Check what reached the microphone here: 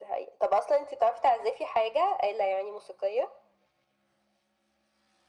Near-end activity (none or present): none